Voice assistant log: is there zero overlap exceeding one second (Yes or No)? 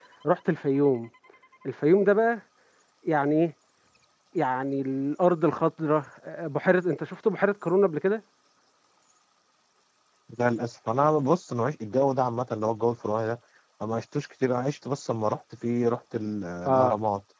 Yes